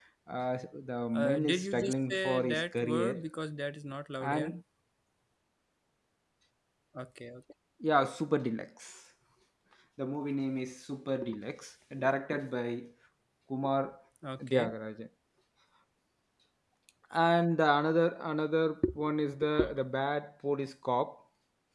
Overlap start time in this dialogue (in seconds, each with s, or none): 1.1 s